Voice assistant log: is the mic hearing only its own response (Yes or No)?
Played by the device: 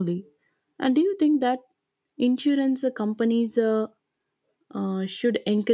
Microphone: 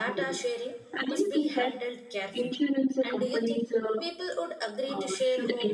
No